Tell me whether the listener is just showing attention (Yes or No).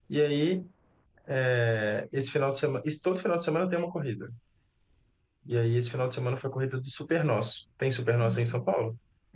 No